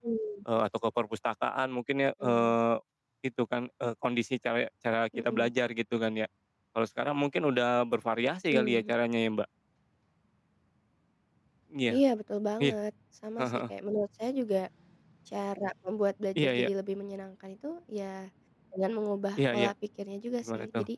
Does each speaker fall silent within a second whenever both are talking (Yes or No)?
Yes